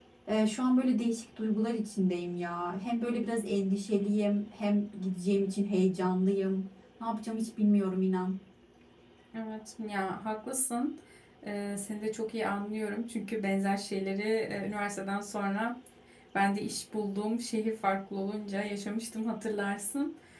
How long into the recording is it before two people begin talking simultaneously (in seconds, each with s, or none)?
none